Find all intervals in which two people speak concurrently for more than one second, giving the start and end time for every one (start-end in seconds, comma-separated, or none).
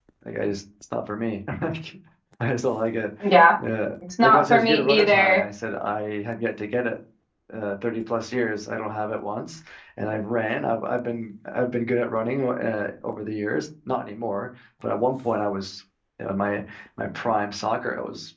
4.2-5.5